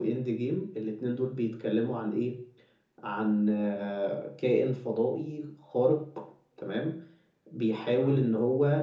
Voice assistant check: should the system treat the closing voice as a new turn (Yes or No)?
No